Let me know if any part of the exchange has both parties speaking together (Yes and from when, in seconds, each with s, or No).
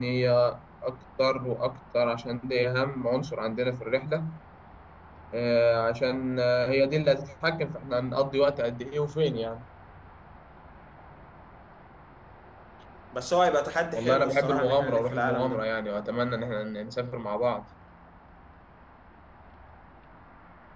Yes, from 13.9 s